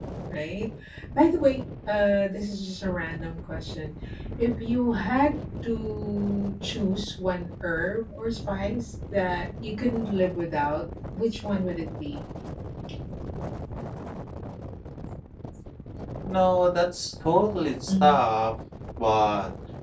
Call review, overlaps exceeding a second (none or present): none